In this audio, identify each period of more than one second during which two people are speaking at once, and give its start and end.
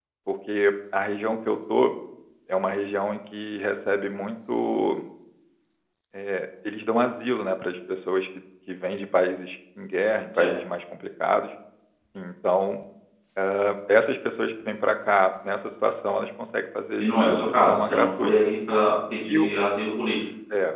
17.0-18.5

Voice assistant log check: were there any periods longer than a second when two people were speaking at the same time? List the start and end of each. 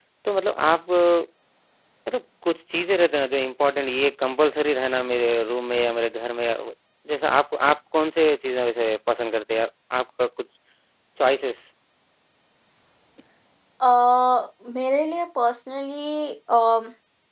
none

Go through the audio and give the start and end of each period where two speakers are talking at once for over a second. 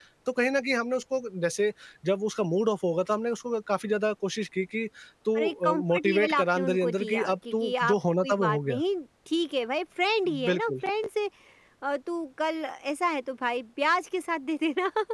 5.4-8.8

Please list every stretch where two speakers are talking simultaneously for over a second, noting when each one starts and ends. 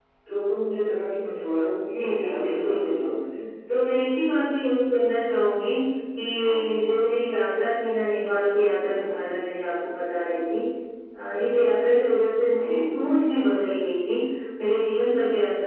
1.9-3.2

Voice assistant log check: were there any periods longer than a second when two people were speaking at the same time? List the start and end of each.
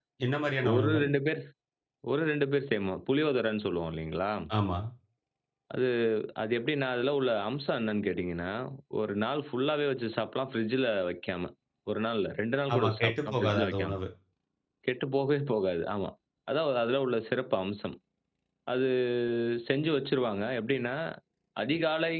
12.7-13.9

